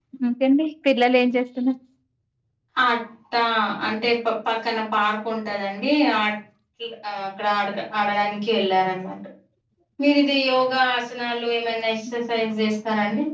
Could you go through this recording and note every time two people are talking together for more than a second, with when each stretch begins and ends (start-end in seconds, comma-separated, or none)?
none